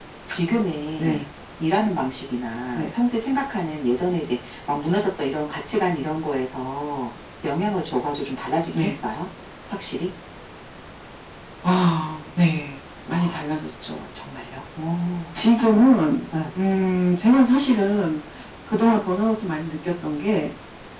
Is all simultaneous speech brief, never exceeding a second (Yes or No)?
Yes